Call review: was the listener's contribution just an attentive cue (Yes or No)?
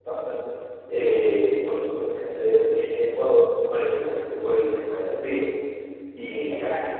No